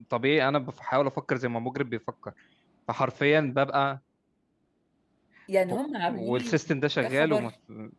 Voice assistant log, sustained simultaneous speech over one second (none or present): none